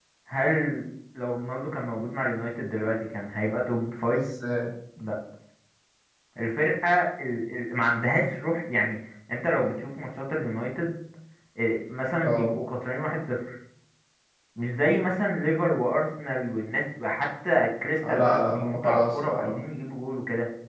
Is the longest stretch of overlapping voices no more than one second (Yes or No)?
No